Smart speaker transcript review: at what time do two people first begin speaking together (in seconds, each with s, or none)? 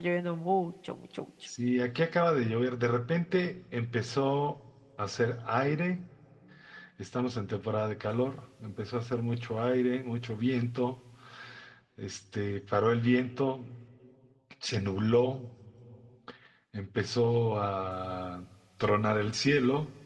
none